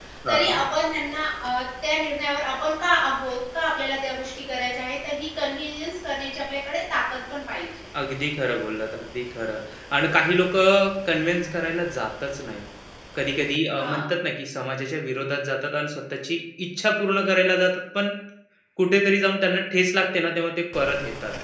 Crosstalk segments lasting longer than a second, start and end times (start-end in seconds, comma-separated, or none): none